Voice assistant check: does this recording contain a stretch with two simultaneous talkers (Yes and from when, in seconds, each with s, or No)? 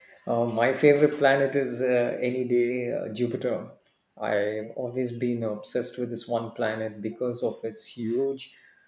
No